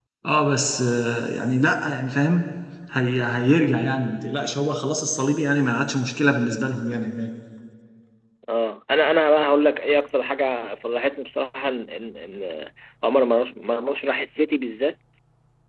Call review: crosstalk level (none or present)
none